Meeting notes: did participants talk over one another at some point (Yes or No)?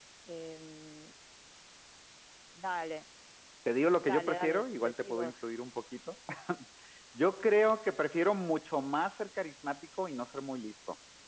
Yes